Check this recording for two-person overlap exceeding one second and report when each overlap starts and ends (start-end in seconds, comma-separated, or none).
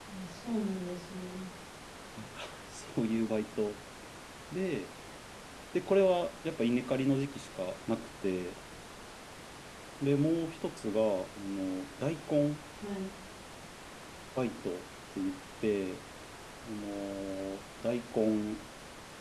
none